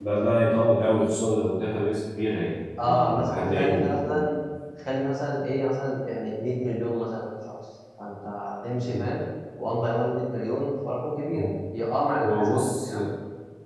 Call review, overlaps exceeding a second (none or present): present